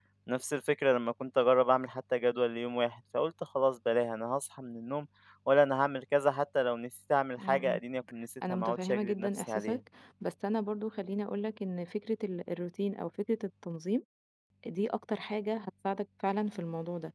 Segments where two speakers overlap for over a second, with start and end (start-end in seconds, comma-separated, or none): 8.5-9.8